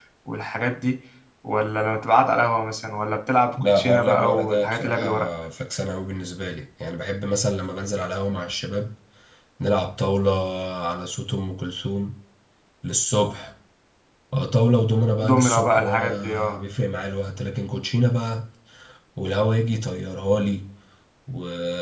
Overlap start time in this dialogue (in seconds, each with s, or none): 3.6 s